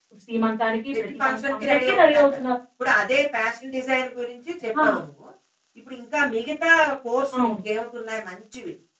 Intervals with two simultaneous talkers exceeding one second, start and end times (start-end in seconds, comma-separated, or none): 0.9-2.4